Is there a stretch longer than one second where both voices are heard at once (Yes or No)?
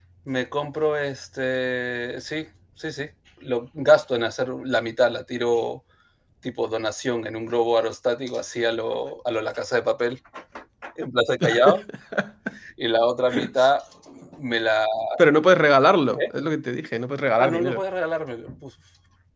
No